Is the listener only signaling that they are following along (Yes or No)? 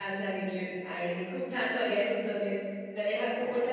Yes